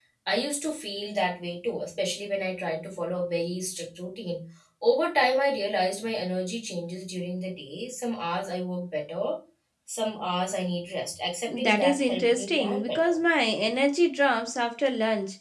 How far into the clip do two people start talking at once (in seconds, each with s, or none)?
11.5 s